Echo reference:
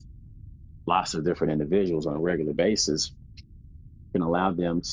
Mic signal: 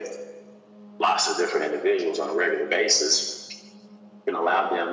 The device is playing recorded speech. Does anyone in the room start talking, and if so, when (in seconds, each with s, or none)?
none